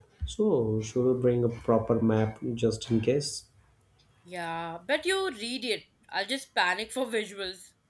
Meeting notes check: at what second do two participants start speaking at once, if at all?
none

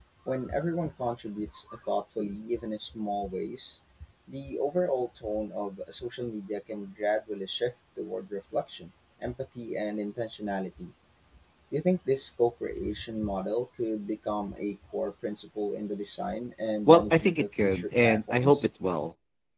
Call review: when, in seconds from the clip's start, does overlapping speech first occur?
16.9 s

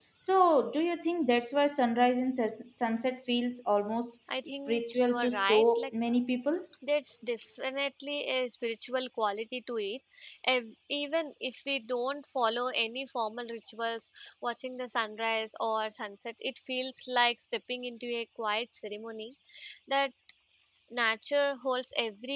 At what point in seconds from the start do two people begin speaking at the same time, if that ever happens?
4.3 s

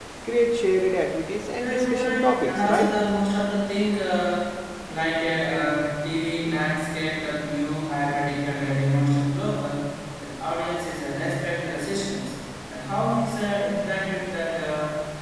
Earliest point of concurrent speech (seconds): 1.6 s

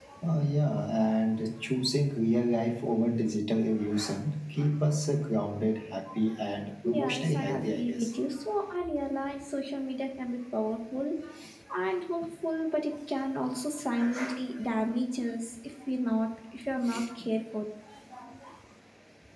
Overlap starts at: 6.8 s

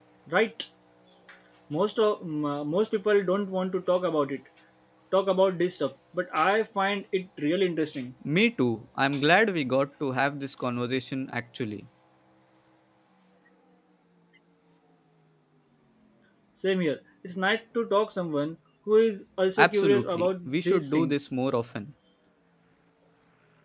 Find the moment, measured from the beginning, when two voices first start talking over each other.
19.6 s

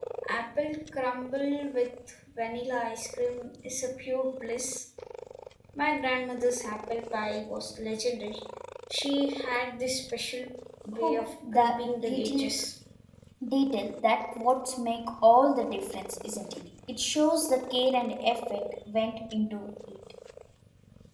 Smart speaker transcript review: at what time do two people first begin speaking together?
11.0 s

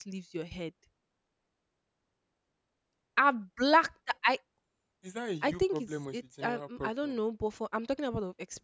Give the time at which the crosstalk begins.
5.4 s

